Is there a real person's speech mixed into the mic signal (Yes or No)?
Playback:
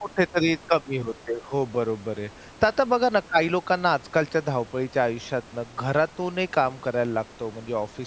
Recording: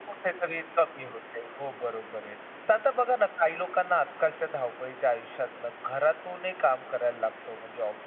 No